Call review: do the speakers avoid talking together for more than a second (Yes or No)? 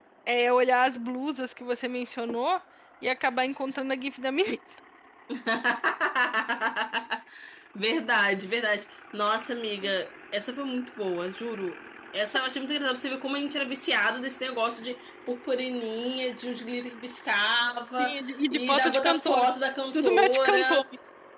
No